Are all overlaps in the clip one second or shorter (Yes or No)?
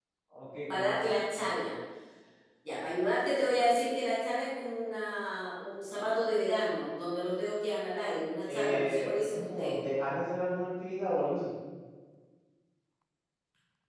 No